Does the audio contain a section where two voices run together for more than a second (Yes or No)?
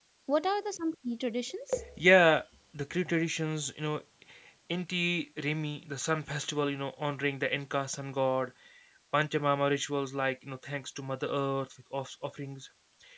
No